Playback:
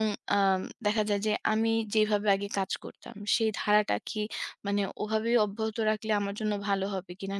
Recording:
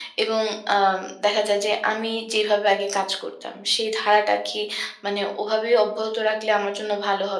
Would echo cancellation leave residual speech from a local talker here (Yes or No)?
No